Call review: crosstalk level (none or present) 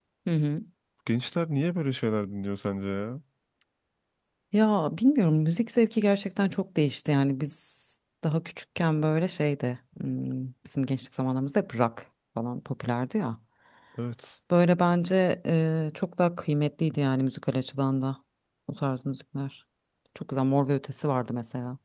none